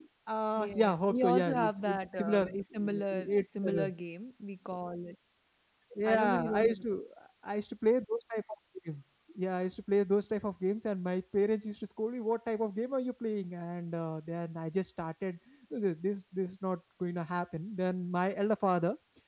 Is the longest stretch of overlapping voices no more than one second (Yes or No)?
No